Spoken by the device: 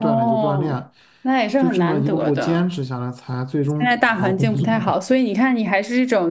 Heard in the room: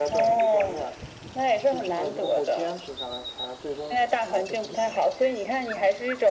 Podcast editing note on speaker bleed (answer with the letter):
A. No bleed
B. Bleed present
B